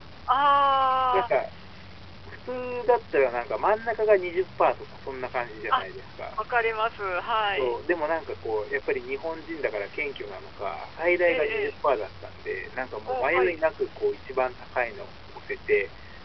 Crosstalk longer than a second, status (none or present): none